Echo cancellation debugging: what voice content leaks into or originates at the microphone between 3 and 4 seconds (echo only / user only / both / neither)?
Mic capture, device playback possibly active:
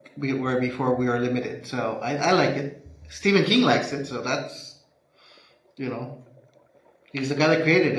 user only